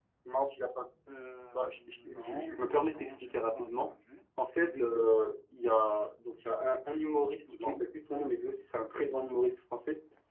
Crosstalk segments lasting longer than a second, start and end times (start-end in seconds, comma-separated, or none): 1.5-3.9